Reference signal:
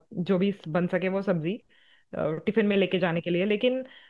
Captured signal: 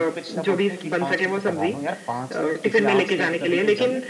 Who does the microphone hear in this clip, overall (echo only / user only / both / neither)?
both